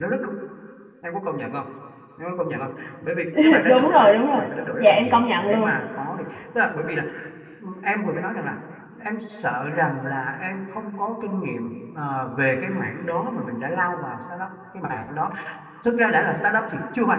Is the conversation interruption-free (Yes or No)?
No